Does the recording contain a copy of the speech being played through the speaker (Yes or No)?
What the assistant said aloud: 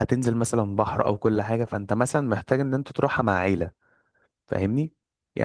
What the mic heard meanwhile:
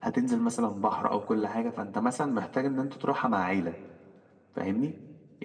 Yes